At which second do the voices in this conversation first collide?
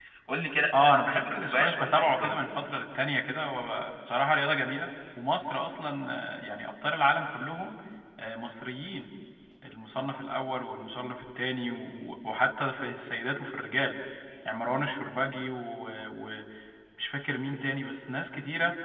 0.8 s

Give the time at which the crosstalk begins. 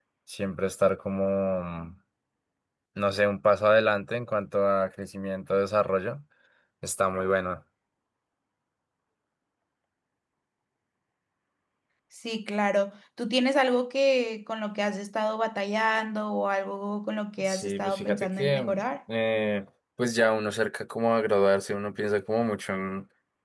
17.4 s

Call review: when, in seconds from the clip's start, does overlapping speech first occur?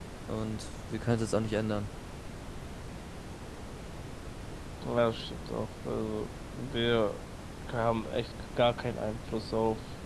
none

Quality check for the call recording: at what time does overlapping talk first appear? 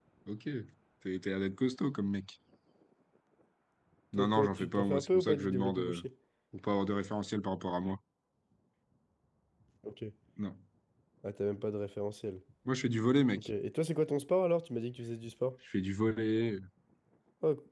4.2 s

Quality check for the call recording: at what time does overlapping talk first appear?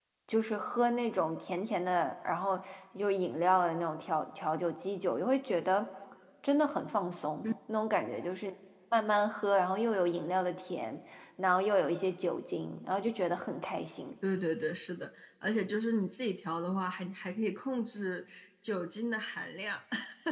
none

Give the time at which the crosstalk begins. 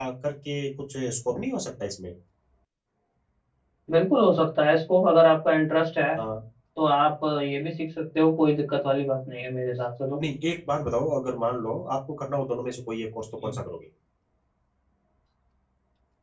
none

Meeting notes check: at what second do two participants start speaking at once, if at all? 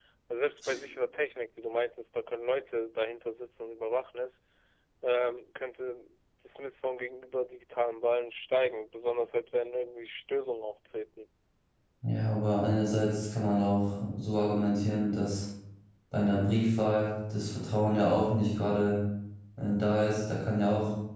none

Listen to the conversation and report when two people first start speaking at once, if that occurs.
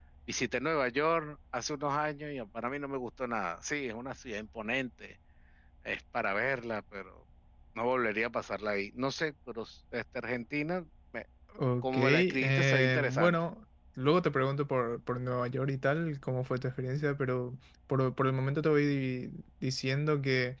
11.8 s

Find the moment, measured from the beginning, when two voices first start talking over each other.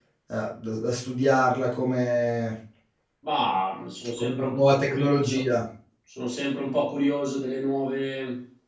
4.2 s

